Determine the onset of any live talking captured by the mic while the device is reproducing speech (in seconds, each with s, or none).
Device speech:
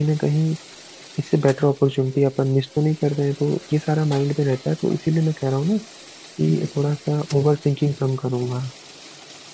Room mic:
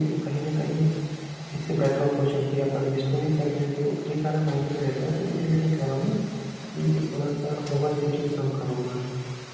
none